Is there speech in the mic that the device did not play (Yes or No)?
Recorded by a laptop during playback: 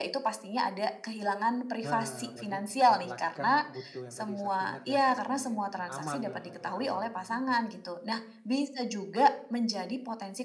Yes